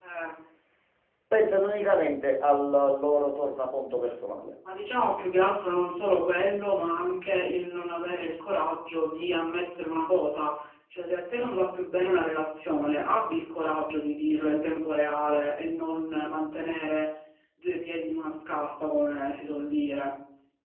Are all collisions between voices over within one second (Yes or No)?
Yes